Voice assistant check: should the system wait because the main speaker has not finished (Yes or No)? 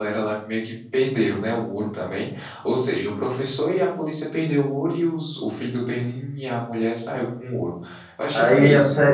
No